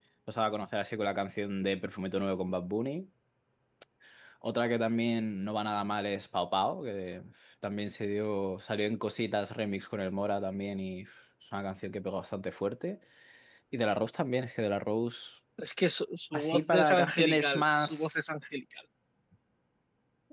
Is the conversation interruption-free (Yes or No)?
No